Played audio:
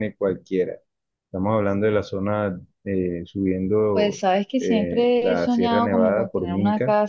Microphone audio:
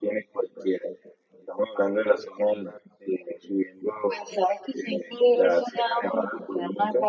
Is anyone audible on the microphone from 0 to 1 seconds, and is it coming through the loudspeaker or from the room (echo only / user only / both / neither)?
echo only